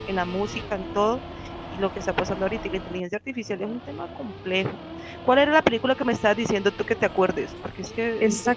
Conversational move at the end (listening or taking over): taking over